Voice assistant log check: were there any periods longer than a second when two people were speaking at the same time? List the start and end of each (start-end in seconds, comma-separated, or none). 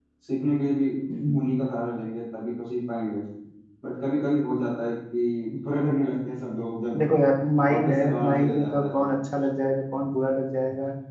7.7-9.1